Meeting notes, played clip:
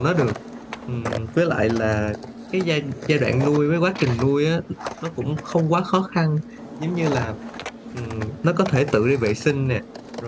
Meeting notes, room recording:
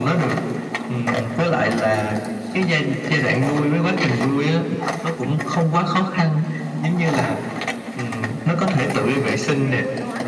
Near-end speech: present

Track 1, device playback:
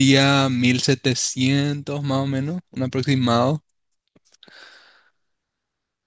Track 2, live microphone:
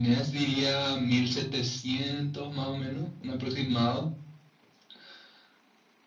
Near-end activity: none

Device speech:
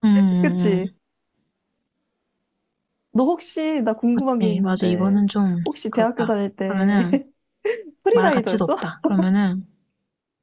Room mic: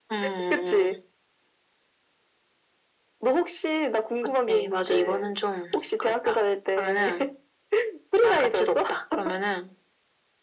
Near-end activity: none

